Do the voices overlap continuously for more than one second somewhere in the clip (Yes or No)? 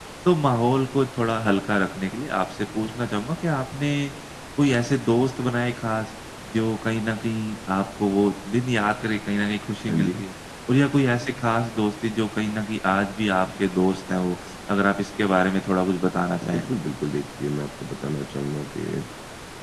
No